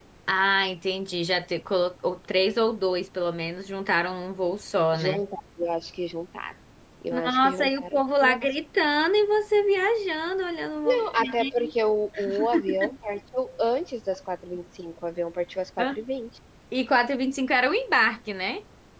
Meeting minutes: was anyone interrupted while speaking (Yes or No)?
Yes